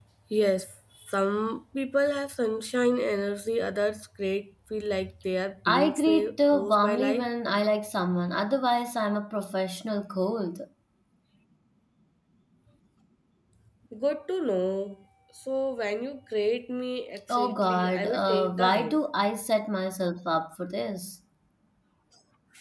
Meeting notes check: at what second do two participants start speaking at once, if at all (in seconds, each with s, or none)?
5.6 s